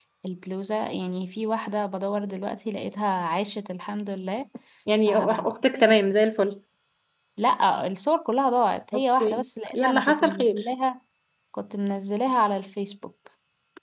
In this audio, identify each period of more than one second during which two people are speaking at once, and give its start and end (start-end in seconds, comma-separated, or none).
8.9-10.6